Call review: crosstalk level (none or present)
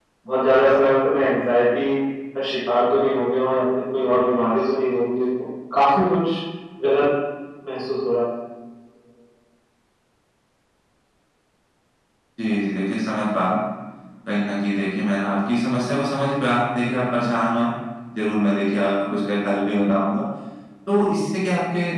none